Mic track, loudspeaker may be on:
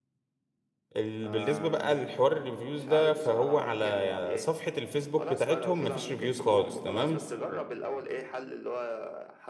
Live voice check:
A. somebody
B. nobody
A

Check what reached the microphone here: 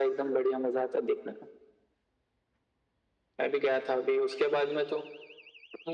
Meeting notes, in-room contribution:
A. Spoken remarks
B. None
B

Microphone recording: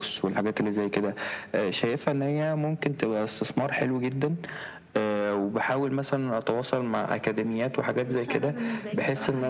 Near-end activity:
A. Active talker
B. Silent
A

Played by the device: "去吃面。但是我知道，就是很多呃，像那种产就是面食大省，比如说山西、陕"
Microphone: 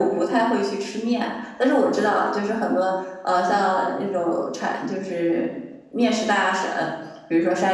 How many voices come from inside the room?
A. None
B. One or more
A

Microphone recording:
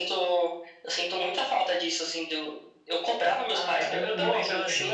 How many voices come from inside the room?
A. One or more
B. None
A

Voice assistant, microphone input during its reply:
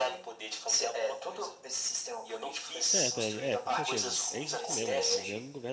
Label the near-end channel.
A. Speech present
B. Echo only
A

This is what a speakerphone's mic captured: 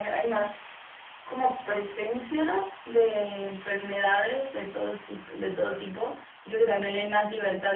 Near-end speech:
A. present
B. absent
B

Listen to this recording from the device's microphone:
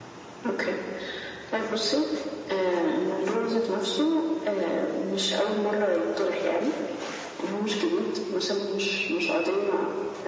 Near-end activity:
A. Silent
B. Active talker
A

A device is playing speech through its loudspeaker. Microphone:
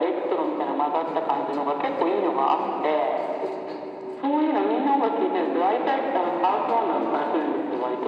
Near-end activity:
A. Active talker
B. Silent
B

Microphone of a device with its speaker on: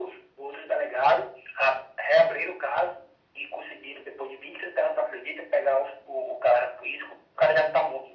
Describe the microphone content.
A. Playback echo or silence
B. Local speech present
A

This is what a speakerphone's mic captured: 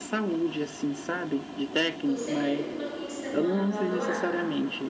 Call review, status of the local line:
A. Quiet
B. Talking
B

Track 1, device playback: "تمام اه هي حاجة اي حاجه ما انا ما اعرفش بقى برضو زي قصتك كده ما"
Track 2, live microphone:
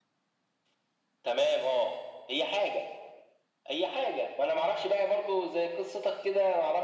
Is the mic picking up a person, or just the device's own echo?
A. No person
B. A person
A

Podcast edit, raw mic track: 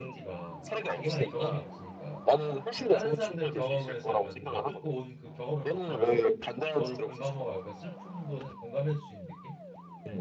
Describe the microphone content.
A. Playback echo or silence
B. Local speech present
B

